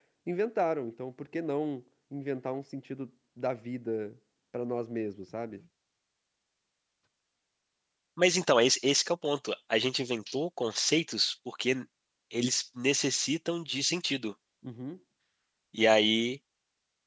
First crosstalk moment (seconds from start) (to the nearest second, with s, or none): none